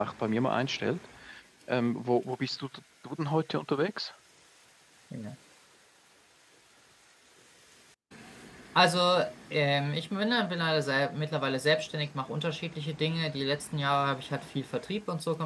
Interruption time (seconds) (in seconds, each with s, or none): none